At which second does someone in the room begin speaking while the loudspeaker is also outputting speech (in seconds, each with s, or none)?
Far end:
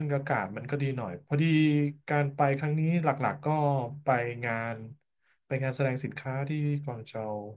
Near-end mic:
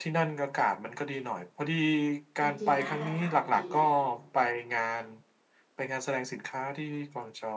2.4 s